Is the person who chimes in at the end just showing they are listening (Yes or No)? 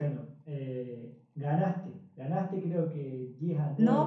No